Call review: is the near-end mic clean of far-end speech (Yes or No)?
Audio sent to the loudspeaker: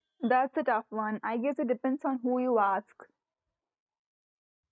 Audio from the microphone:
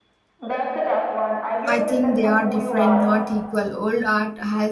No